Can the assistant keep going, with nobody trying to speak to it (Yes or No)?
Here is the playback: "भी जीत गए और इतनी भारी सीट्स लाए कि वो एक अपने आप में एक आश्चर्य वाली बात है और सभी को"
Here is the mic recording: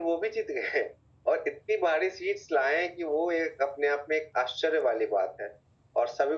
Yes